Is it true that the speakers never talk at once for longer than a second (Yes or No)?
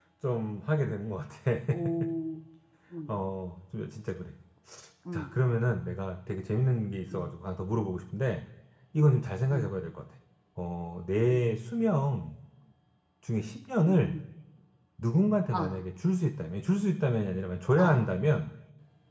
Yes